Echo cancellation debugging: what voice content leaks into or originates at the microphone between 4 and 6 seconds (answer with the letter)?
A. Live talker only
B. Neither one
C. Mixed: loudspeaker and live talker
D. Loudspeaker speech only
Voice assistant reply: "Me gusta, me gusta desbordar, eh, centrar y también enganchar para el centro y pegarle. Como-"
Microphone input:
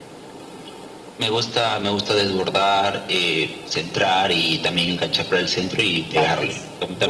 D